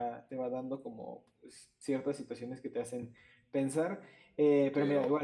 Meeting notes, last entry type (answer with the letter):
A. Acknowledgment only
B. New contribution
B